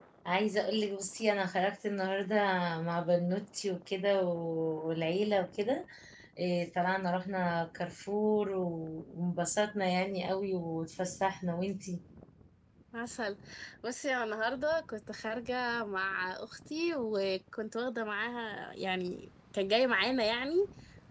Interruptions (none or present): none